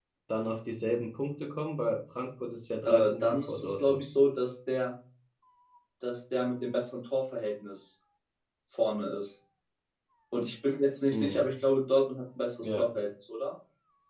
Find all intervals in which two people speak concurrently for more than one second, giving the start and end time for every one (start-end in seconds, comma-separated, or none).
2.8-4.1